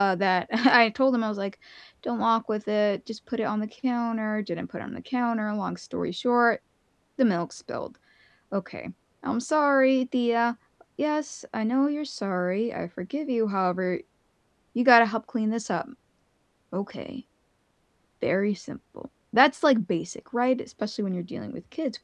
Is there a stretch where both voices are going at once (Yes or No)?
No